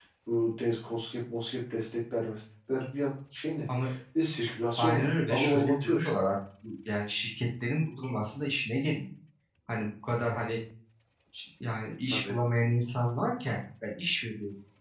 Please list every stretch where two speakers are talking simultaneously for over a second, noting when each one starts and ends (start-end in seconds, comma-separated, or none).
4.8-6.2